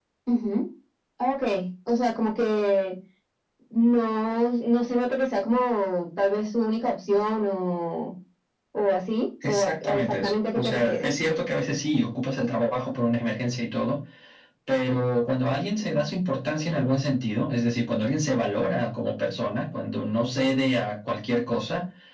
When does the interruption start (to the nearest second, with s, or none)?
9 s